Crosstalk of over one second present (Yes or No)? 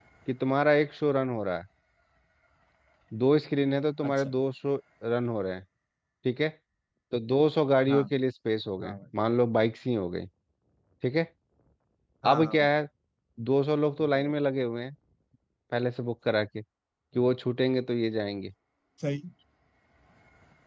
No